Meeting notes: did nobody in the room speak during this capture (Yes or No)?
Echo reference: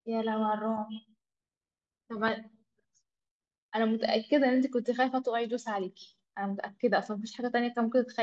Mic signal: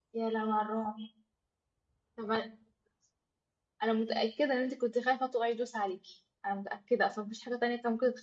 Yes